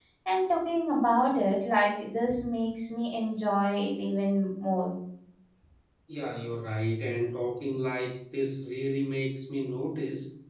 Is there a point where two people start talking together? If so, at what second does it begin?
none

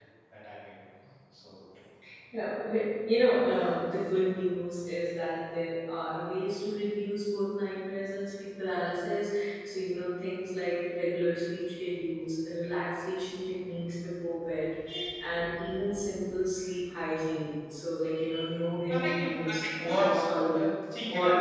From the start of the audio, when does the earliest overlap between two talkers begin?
18.9 s

